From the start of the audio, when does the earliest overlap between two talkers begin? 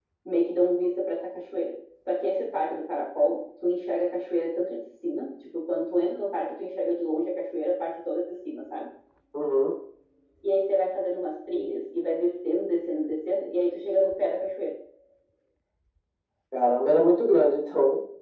none

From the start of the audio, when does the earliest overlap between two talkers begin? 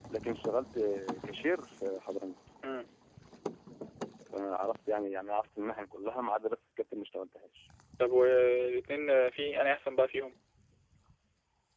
none

